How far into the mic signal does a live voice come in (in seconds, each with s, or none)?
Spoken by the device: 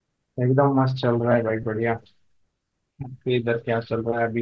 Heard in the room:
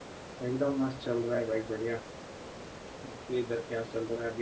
none